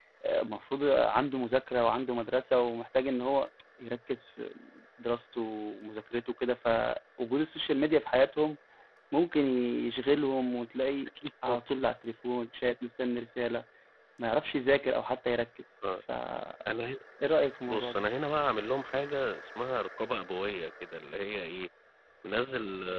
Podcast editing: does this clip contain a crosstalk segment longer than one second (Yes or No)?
No